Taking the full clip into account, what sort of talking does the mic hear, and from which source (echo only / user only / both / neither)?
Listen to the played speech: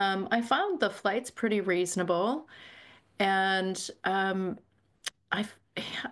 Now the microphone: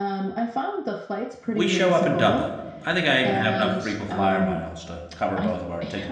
both